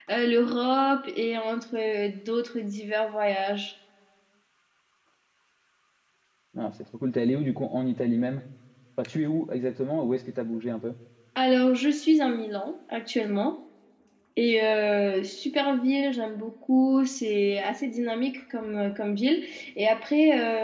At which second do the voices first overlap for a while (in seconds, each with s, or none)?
none